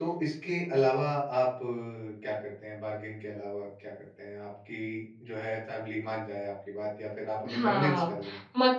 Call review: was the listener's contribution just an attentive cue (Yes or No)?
No